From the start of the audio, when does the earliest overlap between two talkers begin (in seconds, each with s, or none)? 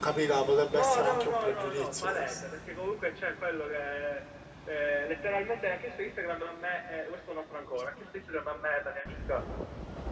0.7 s